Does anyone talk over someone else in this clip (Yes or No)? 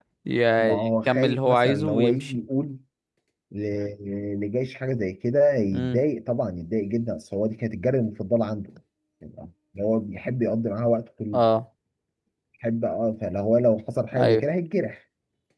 Yes